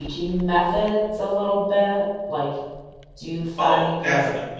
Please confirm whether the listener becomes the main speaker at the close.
Yes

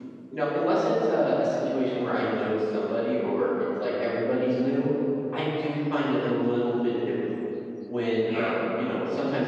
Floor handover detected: No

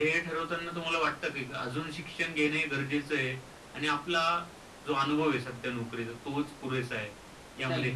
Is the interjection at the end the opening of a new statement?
Yes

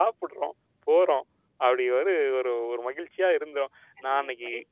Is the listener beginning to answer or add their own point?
Yes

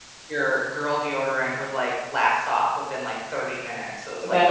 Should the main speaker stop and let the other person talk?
Yes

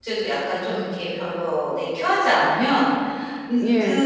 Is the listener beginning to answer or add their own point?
No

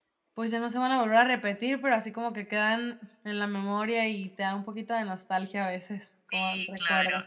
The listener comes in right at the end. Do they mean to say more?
Yes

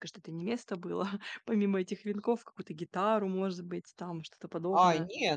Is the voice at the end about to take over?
Yes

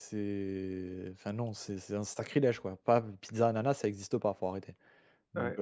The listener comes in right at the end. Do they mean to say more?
Yes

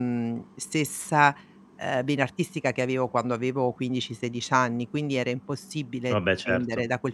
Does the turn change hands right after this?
No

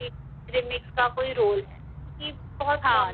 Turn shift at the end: Yes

